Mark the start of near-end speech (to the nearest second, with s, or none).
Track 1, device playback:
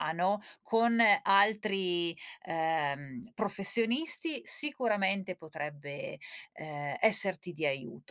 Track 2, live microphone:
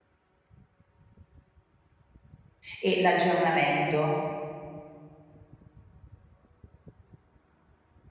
3 s